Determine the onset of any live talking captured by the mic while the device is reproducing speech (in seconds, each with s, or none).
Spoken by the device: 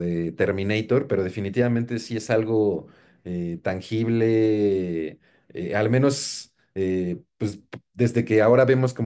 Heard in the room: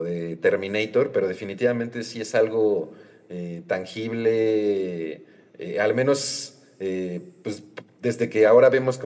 none